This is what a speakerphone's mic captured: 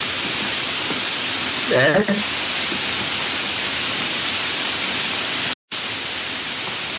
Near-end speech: present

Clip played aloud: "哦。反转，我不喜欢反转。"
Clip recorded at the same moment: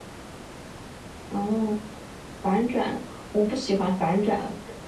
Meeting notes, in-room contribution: none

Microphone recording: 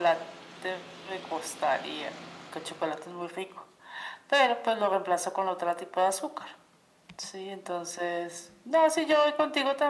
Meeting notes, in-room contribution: none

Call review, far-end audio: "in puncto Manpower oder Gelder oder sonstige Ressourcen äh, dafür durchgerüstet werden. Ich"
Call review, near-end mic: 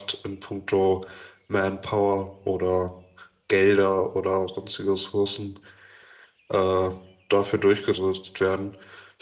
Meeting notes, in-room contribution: none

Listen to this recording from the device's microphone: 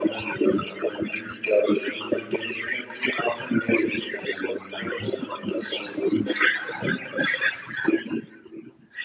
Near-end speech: none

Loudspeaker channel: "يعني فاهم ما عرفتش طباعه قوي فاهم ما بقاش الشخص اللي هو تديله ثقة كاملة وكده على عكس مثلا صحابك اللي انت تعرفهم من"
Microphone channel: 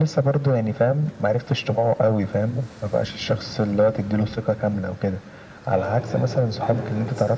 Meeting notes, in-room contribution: present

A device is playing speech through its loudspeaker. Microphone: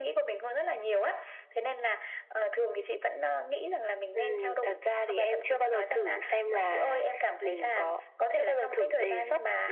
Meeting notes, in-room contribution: none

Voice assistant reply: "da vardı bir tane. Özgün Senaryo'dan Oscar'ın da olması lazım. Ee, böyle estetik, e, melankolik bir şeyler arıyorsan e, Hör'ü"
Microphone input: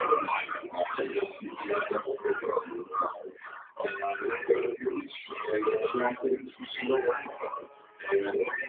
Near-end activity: none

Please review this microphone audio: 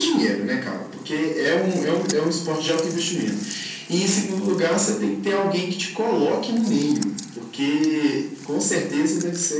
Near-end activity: none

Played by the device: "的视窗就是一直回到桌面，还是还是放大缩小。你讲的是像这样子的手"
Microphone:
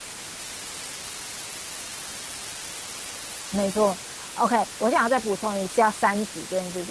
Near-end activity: present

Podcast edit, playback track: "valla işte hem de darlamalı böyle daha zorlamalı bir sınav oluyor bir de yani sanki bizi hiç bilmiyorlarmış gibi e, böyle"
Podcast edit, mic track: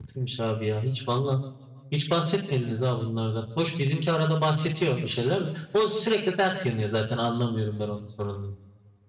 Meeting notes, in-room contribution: present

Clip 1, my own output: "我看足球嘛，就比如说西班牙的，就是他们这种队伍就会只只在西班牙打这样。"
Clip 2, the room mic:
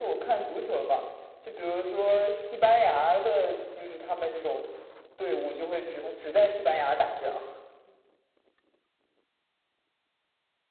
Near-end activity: none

